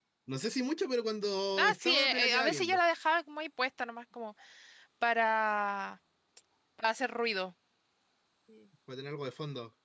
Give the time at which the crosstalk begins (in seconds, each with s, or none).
1.6 s